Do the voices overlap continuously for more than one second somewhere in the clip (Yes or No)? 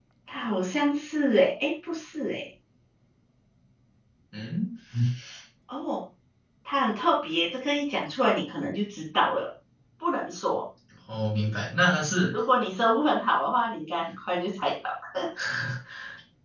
No